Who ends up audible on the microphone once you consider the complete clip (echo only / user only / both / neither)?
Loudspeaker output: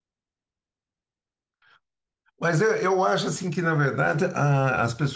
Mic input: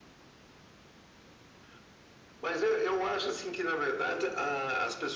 echo only